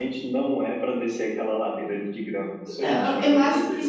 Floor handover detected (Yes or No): Yes